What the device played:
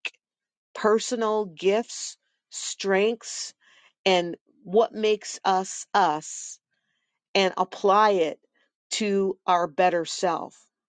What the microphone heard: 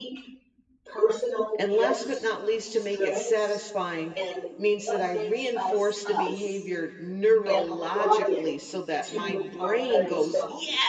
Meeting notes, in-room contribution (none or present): present